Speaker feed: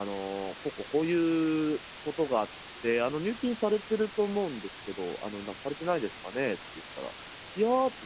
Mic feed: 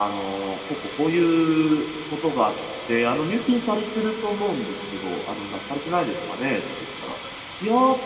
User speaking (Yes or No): No